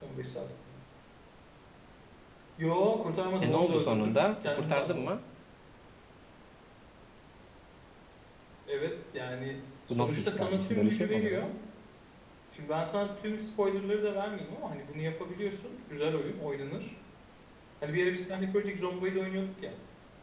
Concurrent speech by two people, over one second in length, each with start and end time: 3.4-5.2, 9.9-11.5

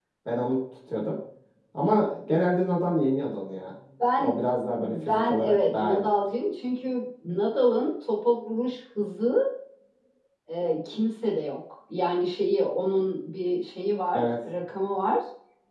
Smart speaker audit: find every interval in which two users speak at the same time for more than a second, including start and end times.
4.7-6.1

